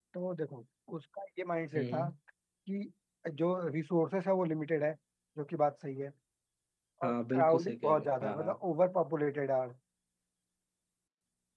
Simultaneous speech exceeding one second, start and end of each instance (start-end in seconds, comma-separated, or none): 7.0-8.6